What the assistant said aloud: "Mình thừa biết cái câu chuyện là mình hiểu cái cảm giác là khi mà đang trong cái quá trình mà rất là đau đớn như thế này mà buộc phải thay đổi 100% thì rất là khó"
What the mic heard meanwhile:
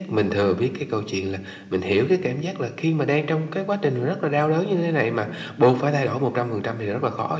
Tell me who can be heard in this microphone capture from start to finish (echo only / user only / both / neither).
echo only